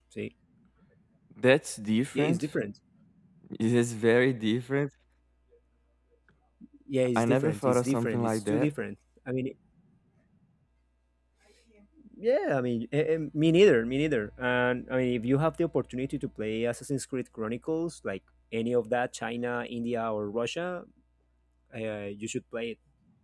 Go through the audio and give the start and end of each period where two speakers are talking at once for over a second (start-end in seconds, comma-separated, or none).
7.2-8.7